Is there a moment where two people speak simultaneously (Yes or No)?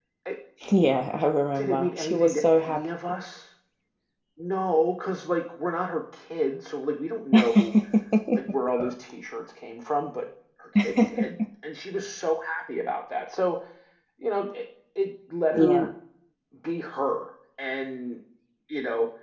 Yes